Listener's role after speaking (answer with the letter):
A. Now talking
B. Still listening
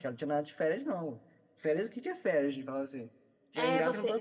A